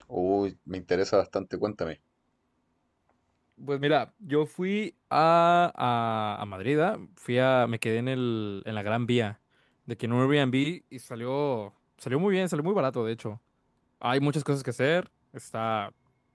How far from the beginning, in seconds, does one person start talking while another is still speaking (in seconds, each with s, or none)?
none